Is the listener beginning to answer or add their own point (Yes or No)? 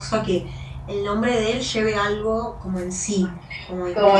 Yes